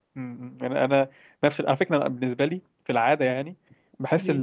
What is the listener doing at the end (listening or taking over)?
listening